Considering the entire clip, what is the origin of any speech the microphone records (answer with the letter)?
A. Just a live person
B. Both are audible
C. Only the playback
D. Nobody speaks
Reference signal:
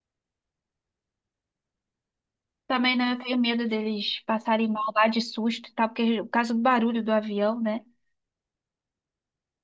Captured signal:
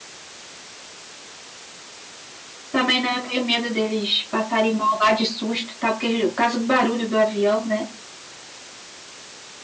C